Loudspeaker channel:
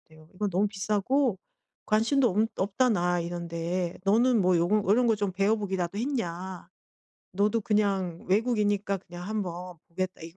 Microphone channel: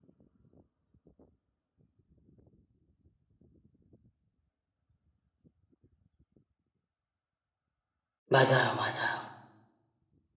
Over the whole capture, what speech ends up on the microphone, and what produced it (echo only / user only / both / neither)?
user only